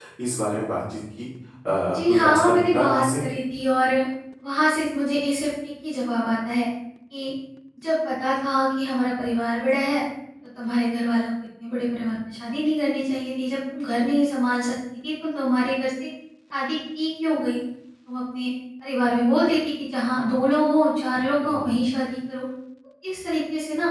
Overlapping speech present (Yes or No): Yes